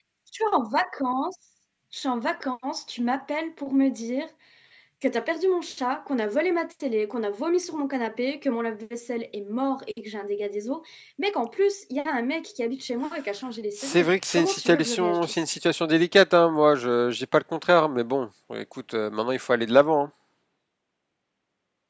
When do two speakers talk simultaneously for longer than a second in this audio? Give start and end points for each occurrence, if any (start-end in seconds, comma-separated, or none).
13.8-15.4